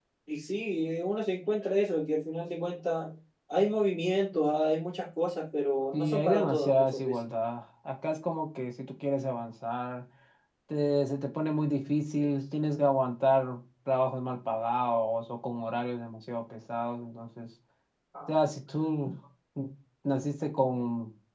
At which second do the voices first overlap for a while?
5.9 s

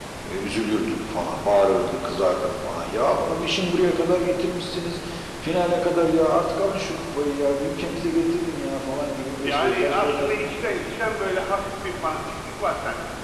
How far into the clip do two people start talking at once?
9.4 s

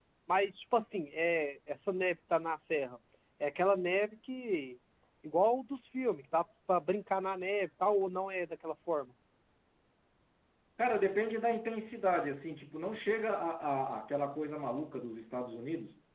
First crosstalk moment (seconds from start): none

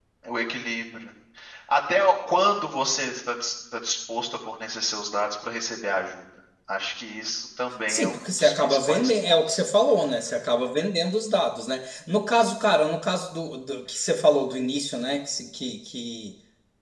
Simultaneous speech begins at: 7.9 s

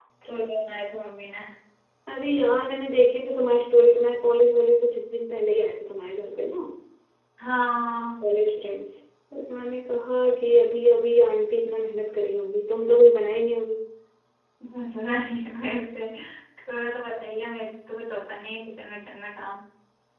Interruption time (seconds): none

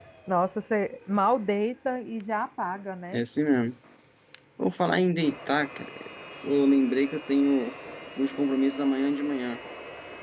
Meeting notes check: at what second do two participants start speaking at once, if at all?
none

